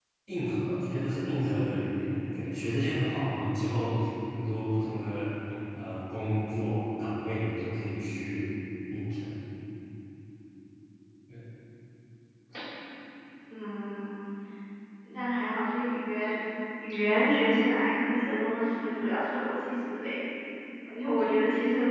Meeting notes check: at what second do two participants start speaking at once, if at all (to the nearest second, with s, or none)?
none